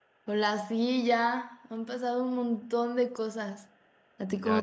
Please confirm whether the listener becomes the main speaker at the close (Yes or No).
Yes